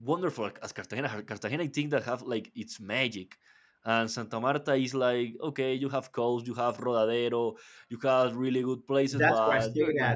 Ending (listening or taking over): taking over